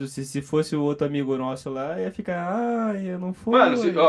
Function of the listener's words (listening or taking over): taking over